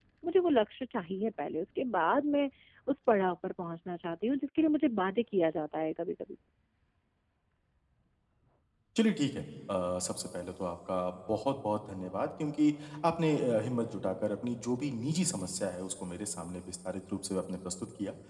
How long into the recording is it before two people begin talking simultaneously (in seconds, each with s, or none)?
none